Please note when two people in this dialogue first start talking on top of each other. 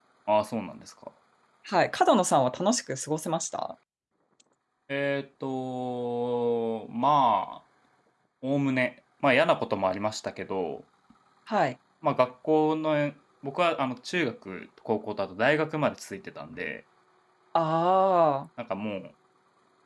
none

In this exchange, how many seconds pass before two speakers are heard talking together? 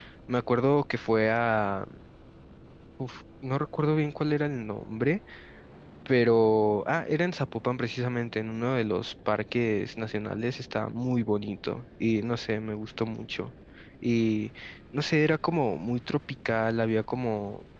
none

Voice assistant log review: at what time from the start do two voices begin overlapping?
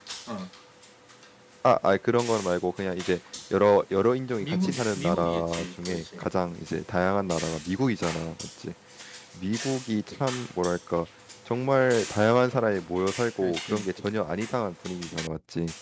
4 s

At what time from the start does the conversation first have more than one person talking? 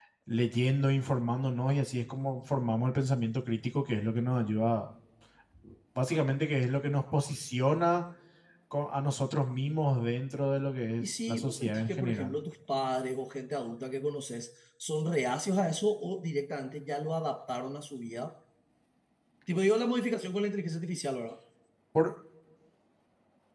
11 s

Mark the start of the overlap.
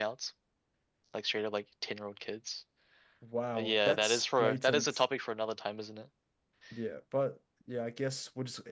4 s

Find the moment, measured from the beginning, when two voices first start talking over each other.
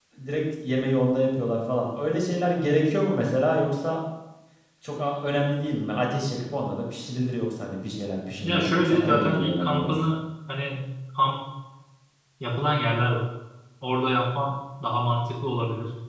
8 s

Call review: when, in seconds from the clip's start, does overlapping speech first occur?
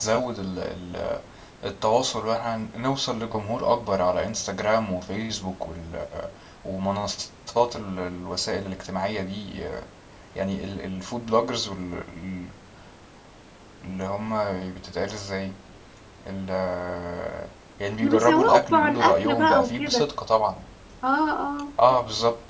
18 s

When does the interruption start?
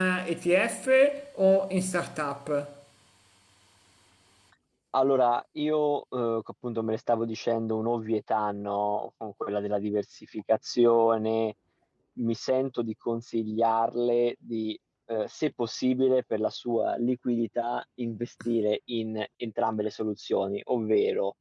none

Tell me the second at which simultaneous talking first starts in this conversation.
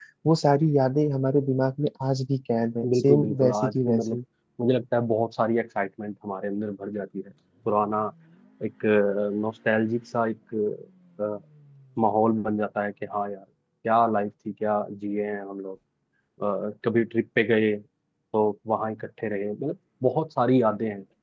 3 s

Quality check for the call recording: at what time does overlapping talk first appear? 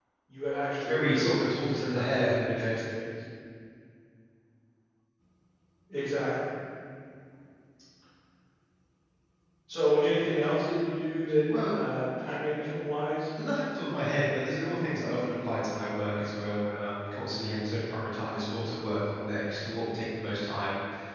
1 s

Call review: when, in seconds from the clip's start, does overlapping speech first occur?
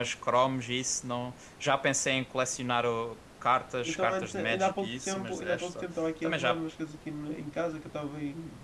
4 s

